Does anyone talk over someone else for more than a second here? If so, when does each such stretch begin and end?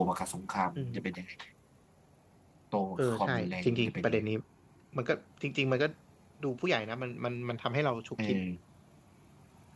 3.0-4.2

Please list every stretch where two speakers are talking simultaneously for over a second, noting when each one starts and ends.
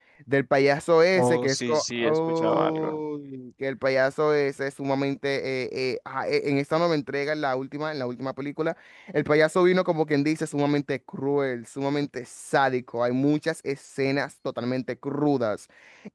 1.1-3.0

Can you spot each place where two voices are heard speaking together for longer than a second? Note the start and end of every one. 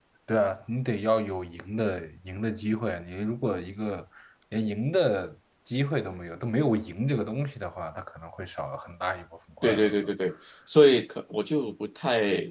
none

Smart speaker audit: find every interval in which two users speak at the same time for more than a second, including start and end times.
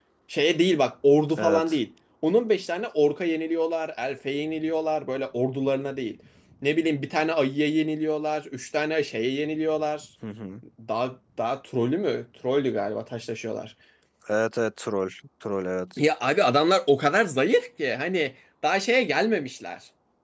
none

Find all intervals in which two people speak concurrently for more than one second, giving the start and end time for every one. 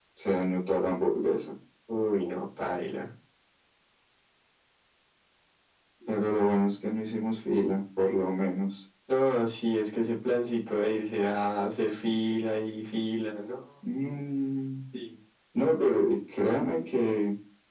none

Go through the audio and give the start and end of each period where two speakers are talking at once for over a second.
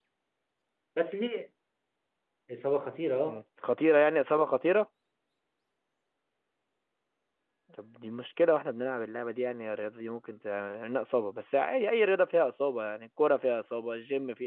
none

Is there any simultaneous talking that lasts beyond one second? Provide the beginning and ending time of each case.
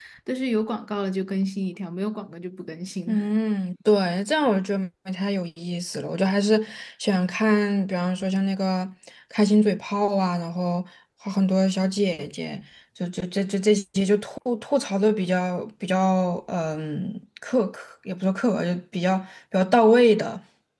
none

